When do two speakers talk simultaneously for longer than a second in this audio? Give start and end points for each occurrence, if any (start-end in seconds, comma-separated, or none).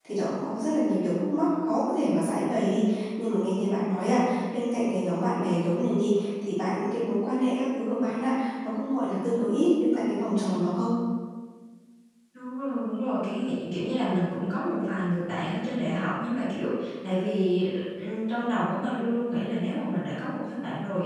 none